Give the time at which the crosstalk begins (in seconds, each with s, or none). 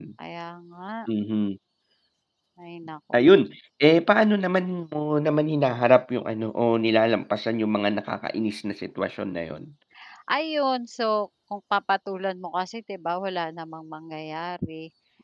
none